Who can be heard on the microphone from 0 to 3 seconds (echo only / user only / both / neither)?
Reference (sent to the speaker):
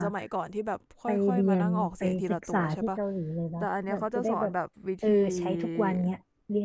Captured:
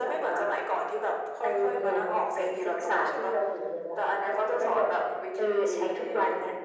echo only